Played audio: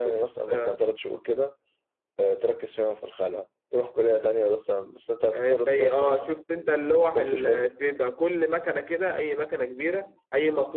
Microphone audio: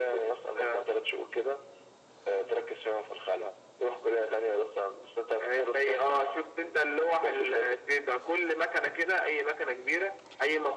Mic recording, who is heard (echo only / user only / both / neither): echo only